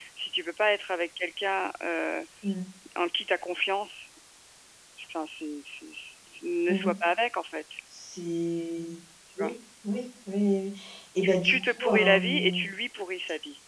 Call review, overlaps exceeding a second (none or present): present